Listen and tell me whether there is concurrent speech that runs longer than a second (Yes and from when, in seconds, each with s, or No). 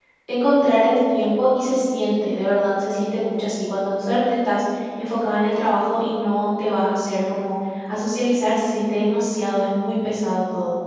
No